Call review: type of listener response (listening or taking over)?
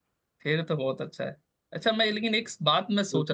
listening